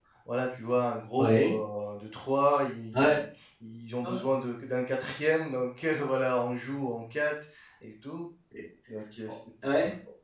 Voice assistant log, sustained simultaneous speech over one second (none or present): none